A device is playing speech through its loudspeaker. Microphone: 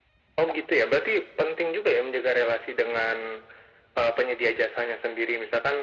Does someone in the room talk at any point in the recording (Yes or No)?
No